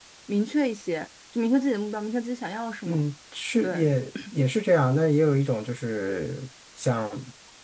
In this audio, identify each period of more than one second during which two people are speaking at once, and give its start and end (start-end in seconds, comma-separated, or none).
none